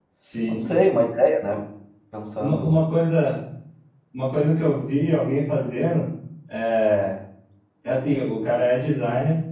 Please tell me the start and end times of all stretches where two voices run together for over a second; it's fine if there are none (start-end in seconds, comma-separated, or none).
none